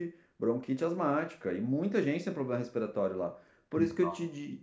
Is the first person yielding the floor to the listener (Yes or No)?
No